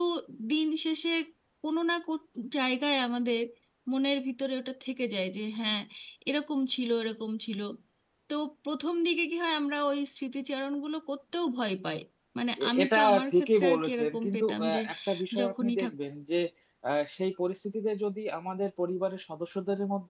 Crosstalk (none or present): present